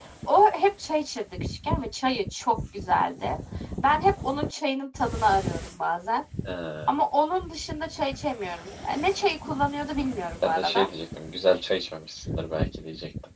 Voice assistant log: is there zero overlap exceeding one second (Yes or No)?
Yes